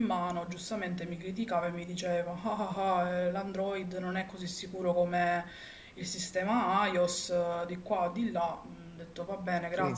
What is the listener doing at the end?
taking over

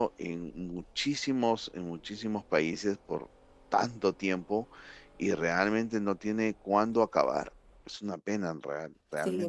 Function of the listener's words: taking over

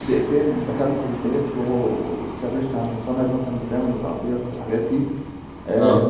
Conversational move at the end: listening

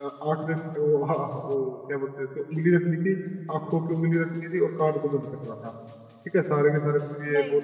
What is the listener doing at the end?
listening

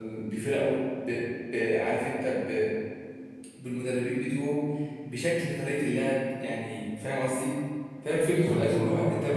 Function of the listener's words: listening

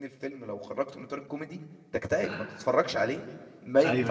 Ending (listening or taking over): taking over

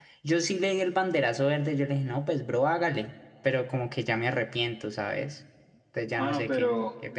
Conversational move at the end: taking over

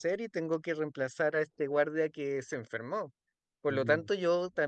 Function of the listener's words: listening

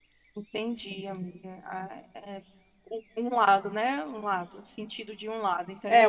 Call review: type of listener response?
taking over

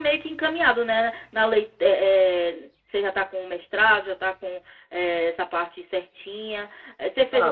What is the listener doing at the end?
taking over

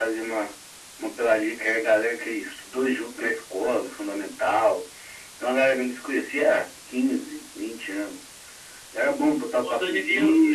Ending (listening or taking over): taking over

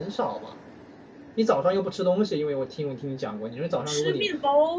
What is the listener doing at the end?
taking over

